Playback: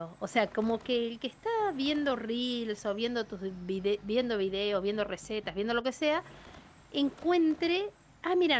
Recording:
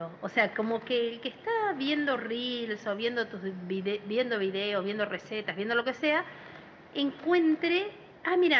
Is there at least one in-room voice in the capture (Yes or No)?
No